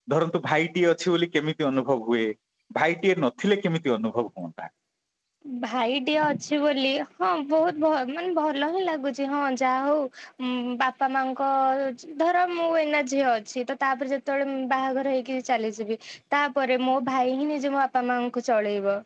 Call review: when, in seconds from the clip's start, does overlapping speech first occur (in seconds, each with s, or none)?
none